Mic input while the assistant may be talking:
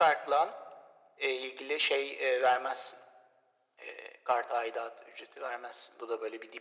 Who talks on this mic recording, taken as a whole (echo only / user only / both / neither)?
echo only